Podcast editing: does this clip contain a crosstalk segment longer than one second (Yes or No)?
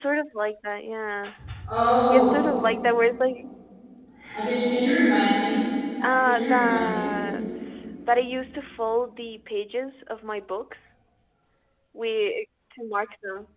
Yes